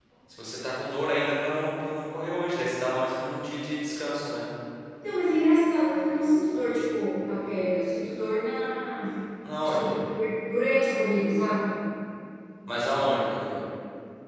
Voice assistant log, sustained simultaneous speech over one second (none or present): none